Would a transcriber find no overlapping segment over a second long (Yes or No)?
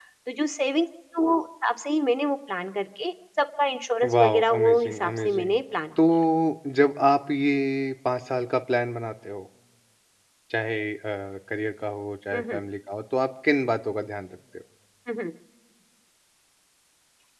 No